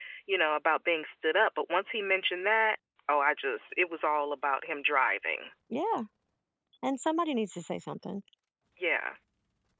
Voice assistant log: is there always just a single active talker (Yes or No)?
Yes